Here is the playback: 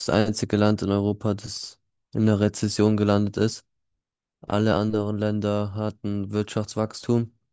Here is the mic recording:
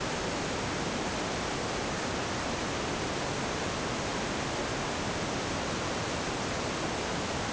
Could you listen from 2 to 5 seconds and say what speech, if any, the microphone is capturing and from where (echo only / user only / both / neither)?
neither